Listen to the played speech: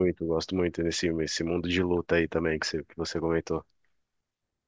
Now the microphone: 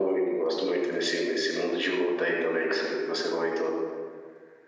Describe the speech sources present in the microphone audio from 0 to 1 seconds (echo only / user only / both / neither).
echo only